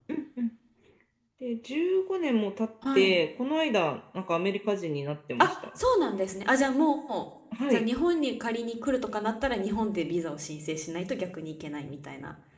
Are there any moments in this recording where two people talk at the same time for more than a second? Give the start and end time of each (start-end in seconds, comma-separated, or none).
none